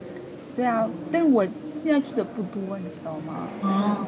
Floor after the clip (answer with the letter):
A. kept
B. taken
A